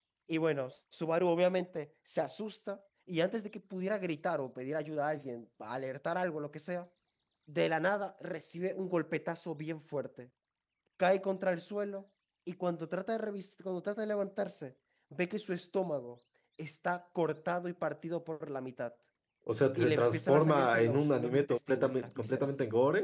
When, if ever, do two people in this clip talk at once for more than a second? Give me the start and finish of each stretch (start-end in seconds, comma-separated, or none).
19.8-22.5